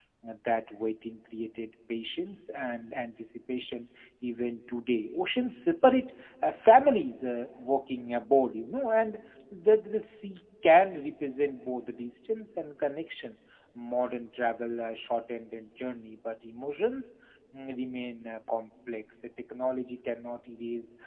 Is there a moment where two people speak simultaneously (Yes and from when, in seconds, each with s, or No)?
No